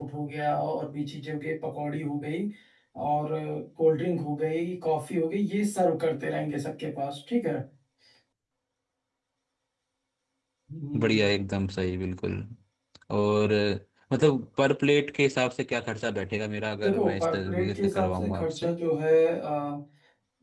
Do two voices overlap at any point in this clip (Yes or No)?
Yes